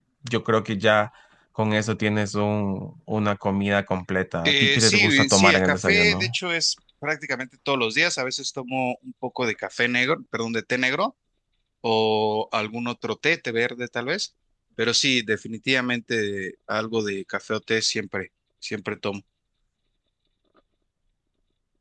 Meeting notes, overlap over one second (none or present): present